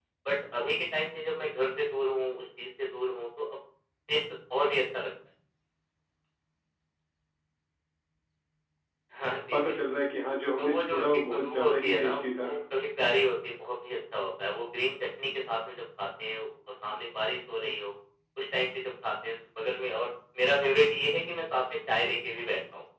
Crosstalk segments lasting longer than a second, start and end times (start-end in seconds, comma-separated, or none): 10.6-12.5